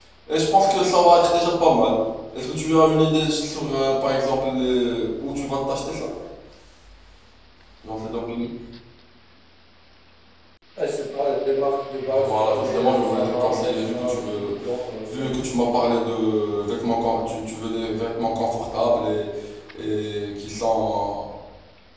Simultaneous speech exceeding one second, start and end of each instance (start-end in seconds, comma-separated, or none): 12.0-14.5